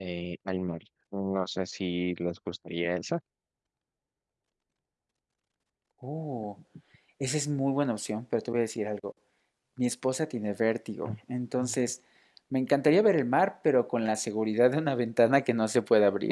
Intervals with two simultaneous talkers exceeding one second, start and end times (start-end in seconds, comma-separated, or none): none